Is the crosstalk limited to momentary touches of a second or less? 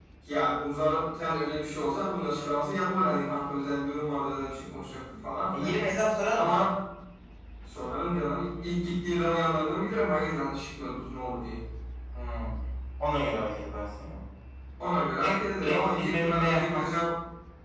No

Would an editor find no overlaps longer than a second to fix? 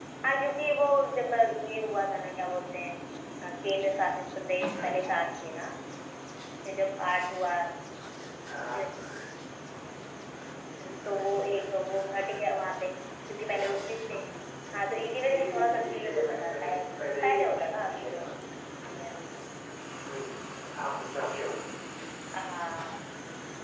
No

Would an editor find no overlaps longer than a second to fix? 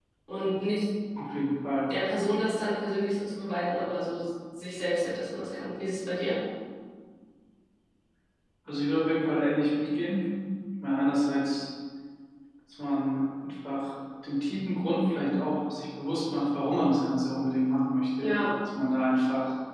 Yes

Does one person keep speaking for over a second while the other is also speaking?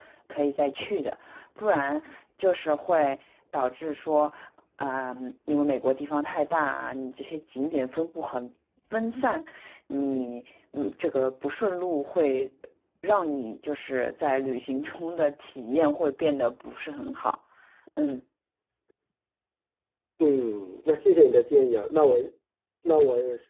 No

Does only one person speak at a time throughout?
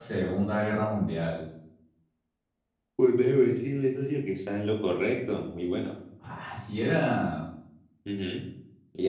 Yes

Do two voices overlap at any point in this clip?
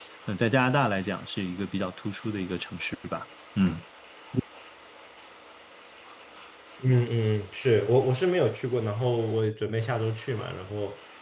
No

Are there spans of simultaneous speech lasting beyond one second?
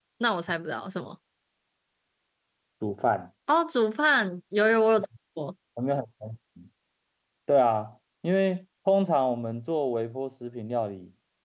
No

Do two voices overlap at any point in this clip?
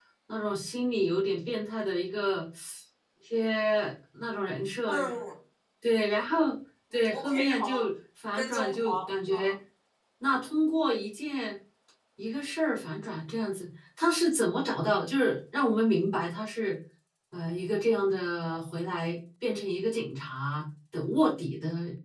Yes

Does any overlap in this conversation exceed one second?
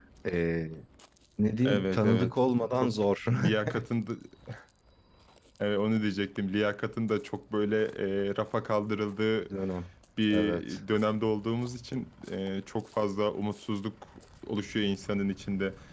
Yes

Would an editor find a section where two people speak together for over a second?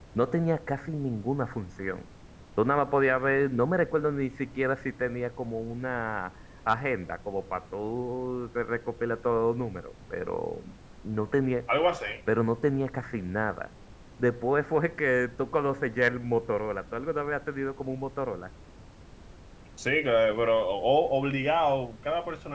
No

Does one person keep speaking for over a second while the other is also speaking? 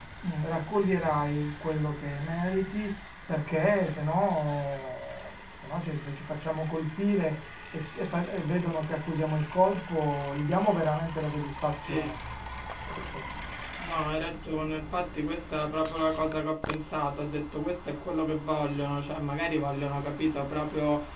No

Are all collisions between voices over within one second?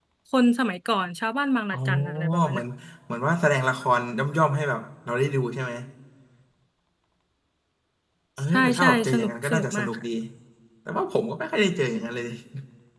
No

